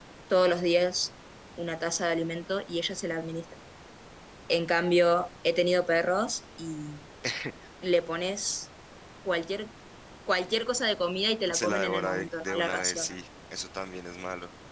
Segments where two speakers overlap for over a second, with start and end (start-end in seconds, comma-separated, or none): 11.5-13.1